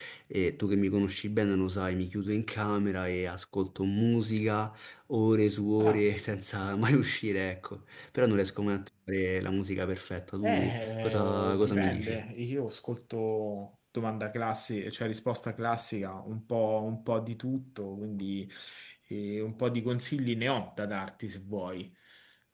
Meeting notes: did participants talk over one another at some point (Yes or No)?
Yes